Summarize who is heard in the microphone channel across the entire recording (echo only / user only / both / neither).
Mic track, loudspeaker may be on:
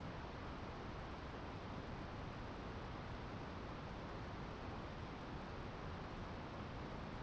neither